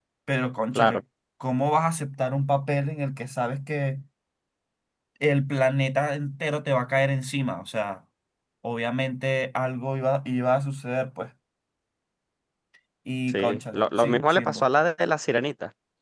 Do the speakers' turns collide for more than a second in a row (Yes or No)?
Yes